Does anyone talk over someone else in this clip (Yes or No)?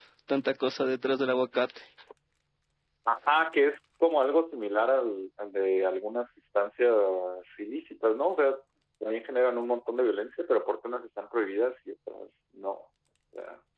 No